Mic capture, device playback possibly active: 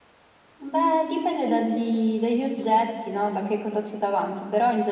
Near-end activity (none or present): present